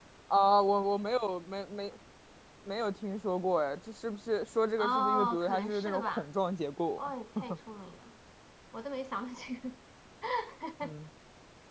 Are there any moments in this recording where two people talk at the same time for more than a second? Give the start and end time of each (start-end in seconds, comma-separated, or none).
4.8-6.3